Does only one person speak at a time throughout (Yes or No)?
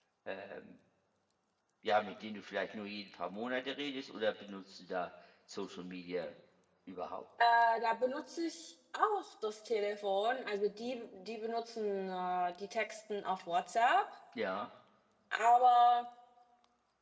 Yes